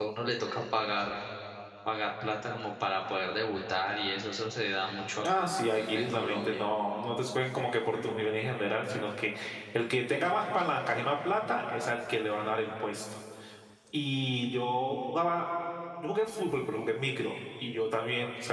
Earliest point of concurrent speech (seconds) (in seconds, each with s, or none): 5.2 s